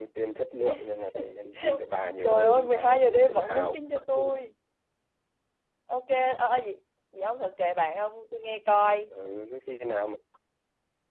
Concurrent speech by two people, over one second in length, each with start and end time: 2.2-4.3

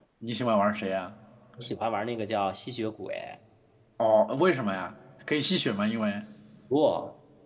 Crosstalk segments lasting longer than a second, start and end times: none

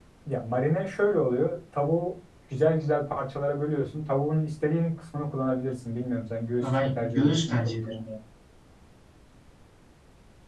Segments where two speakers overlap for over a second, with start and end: 6.6-8.0

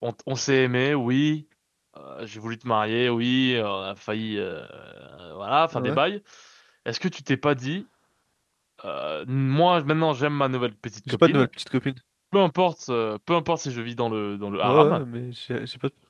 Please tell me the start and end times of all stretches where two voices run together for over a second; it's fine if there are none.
none

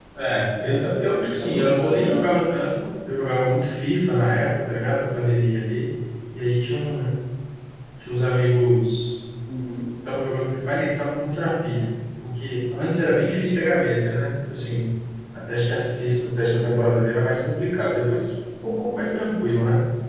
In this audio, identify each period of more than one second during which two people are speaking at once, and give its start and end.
0.6-2.2

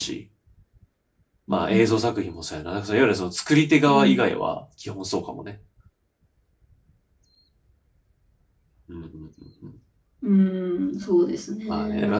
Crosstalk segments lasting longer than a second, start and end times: none

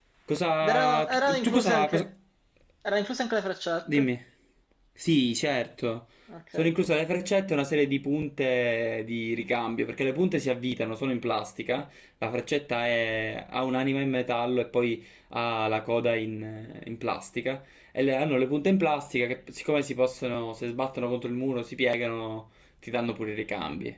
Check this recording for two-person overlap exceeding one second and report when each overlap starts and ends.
0.6-2.1

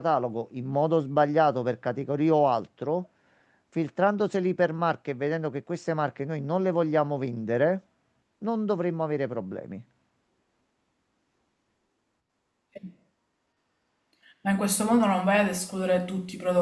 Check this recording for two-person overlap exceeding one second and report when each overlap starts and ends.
none

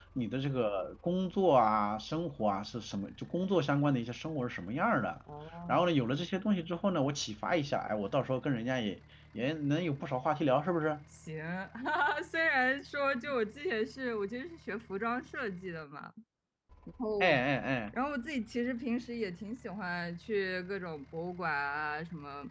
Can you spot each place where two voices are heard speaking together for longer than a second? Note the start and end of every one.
none

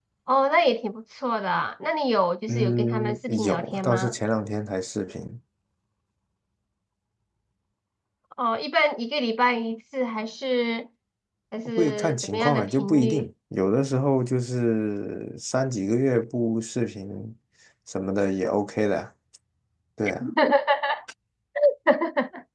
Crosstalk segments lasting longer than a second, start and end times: 2.5-4.2, 11.8-13.3

